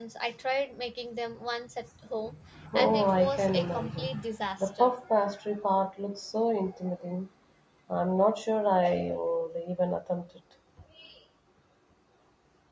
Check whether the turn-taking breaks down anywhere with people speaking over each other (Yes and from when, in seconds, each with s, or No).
Yes, from 2.8 s